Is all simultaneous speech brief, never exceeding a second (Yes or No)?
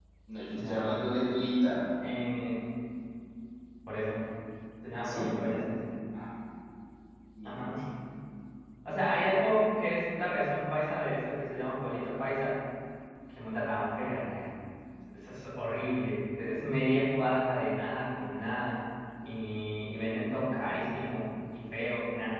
Yes